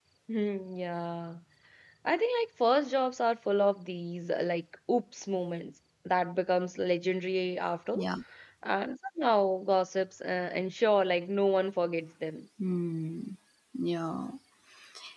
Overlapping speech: No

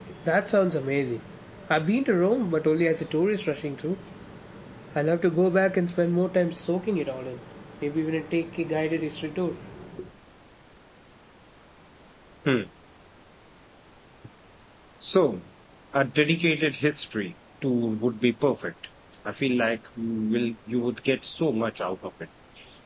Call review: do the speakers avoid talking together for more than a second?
Yes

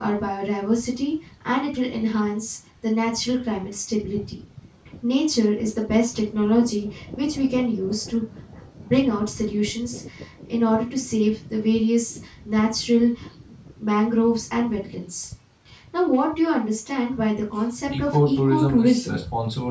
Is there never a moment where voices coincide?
No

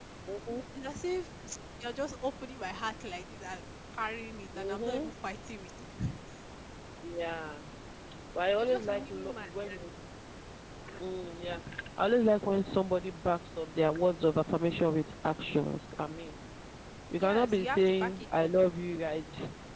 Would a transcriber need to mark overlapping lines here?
Yes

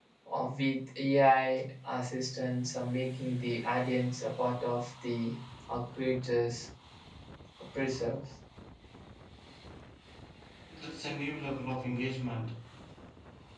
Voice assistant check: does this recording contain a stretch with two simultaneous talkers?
No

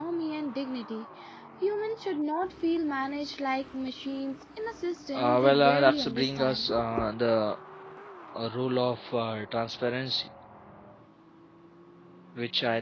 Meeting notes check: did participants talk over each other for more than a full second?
Yes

